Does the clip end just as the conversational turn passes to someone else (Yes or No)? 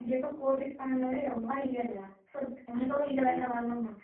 No